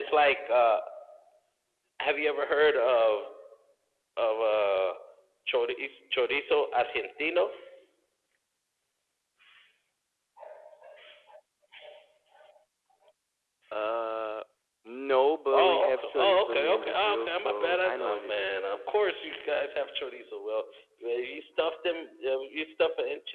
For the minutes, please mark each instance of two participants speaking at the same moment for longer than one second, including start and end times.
15.6-18.5

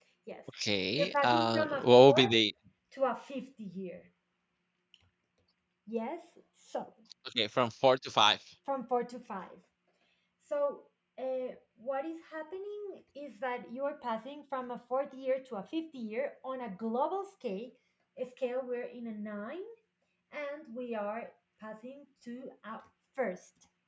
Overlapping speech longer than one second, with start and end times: 1.0-2.3

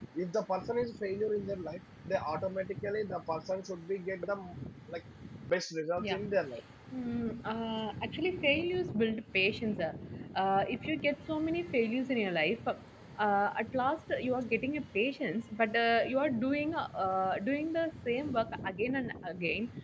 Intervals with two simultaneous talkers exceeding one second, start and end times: none

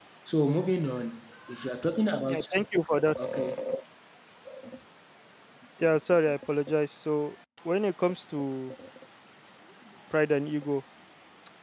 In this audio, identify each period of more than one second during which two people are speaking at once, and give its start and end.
none

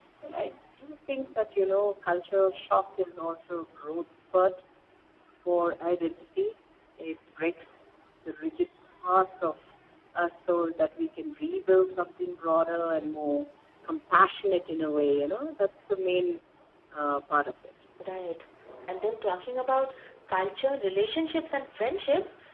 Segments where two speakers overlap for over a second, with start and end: none

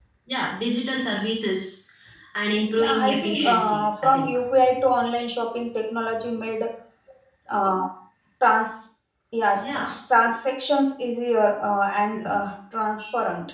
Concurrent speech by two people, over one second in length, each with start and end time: 2.6-4.3

